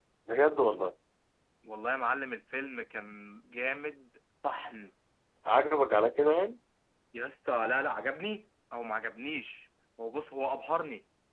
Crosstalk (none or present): none